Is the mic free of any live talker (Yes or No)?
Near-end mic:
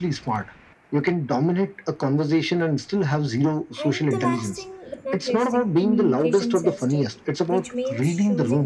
No